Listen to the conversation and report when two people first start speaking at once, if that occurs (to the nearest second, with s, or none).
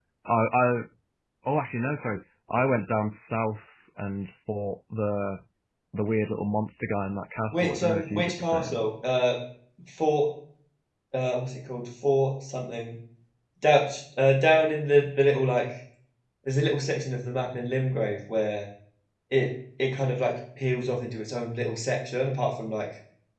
8 s